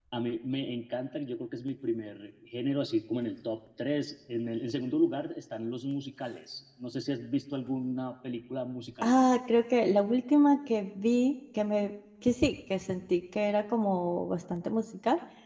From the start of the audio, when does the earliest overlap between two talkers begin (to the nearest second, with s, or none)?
none